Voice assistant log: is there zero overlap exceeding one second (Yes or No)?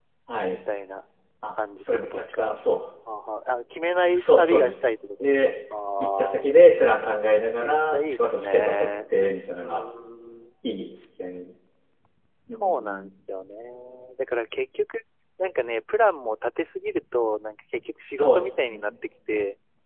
No